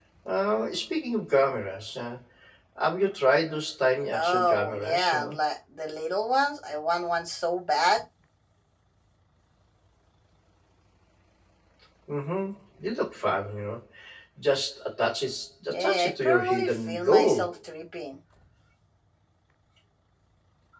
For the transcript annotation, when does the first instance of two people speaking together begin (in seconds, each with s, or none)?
4.1 s